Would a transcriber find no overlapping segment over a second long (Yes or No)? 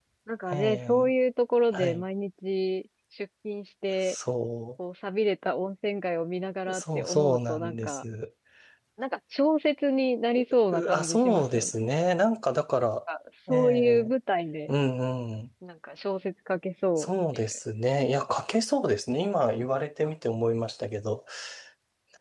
No